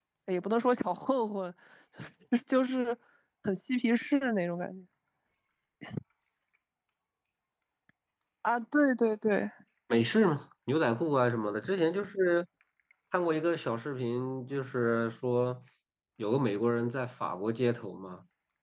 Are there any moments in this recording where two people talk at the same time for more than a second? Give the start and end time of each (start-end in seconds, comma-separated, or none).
none